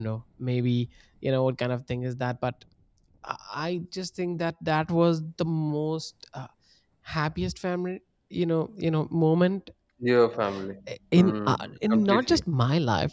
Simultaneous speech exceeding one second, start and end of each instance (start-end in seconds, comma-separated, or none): 11.2-12.4